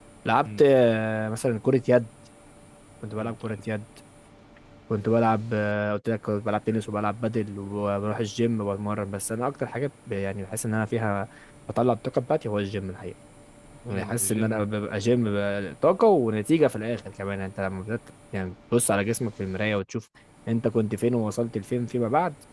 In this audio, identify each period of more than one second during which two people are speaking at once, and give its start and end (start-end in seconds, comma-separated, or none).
13.9-15.4